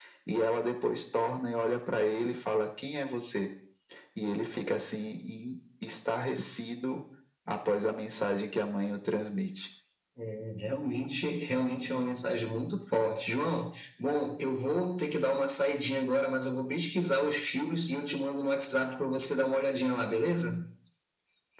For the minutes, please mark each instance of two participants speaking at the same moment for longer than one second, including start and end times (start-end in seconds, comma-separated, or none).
none